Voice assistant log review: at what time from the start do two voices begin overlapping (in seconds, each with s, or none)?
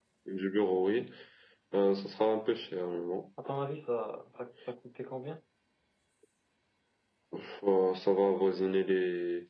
none